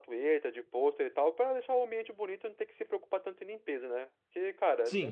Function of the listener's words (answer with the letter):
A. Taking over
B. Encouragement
A